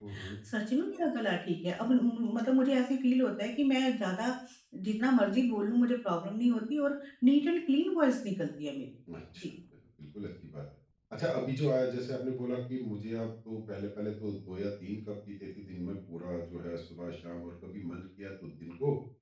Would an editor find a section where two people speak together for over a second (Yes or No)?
No